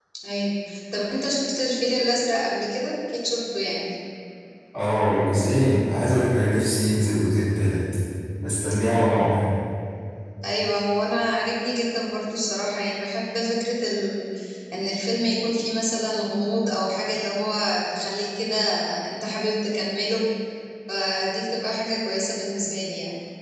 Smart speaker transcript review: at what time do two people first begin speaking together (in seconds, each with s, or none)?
none